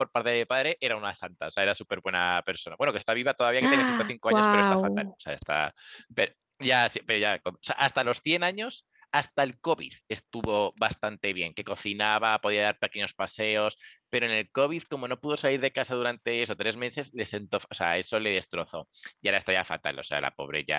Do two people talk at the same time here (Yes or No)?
Yes